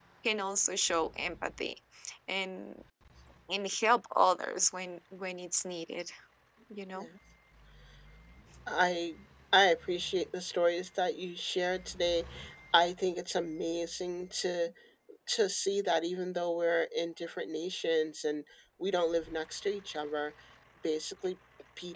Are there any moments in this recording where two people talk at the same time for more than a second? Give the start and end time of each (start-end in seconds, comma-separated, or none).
none